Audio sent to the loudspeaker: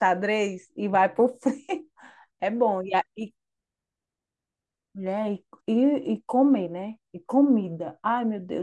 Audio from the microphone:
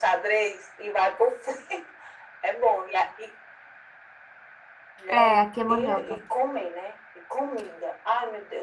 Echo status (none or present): present